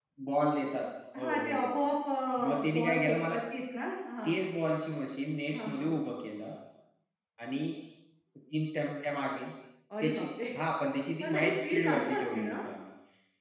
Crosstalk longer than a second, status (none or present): present